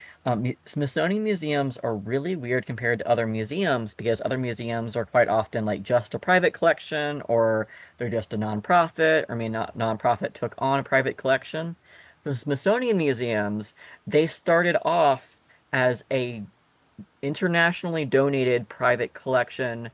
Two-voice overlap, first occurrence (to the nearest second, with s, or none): none